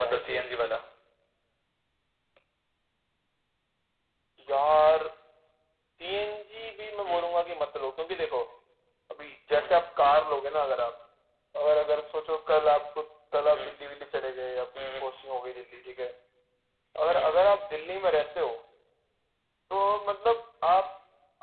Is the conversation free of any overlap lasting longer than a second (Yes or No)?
Yes